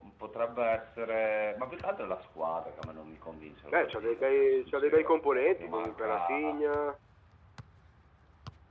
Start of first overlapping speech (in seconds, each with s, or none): 3.7 s